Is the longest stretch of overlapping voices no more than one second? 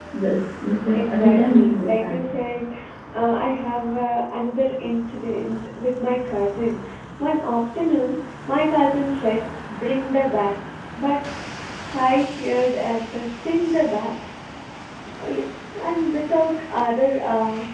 No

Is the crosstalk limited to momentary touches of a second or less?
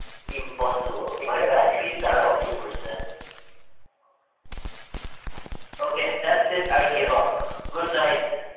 No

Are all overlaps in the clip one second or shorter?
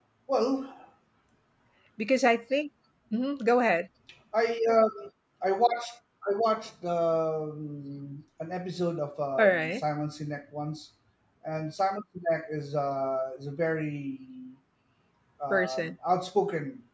Yes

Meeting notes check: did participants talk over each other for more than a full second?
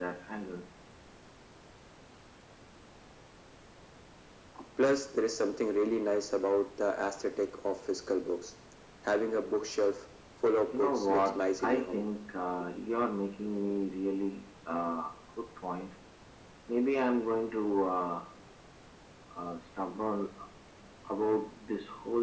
Yes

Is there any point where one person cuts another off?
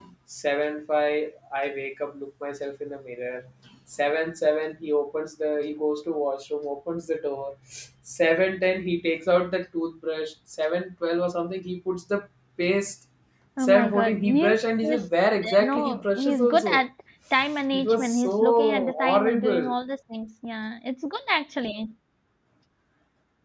Yes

